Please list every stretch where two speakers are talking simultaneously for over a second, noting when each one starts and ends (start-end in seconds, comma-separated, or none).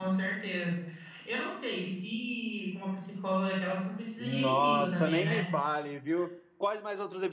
4.2-5.4